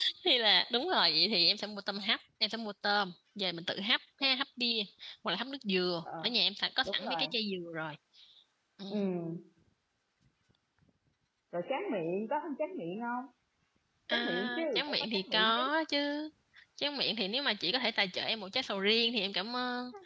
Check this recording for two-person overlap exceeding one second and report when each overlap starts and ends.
14.1-15.6

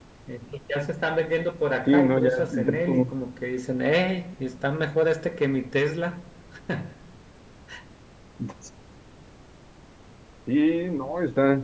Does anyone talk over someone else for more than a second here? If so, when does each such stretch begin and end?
1.9-3.1

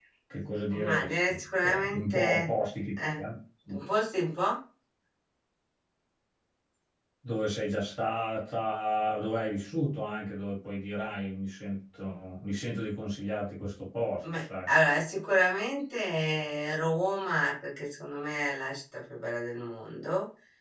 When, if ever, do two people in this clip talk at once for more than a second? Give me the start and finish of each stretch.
0.7-2.5

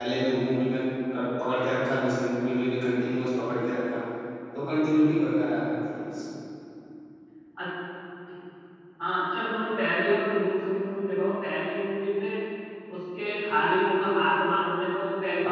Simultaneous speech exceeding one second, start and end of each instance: none

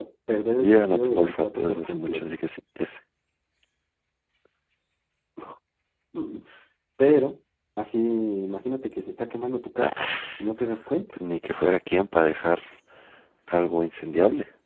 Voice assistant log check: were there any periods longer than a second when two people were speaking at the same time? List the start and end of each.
0.6-2.2

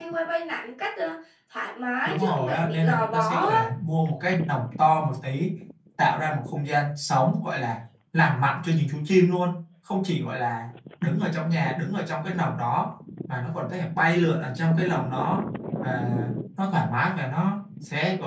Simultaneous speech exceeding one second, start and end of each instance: 2.0-3.6

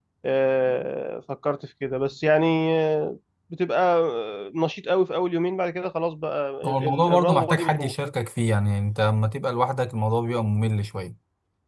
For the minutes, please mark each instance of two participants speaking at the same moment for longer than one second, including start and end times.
6.6-7.9

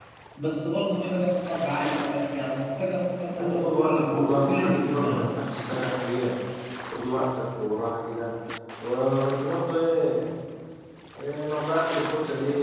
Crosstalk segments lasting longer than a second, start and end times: 3.4-5.3

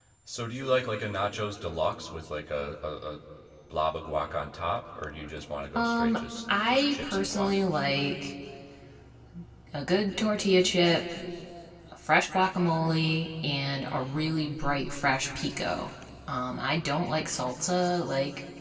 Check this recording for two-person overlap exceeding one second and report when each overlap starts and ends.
5.8-7.6

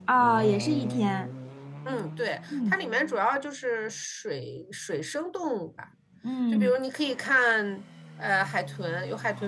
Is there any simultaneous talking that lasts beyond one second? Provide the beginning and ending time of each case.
none

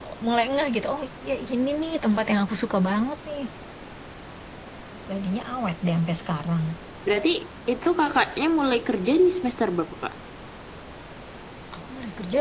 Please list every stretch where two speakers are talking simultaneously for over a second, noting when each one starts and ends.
none

